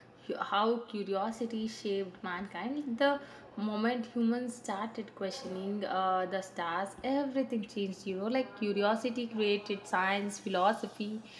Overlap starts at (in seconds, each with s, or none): none